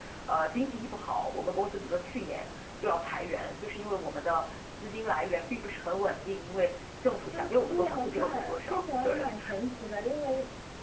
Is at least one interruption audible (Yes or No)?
Yes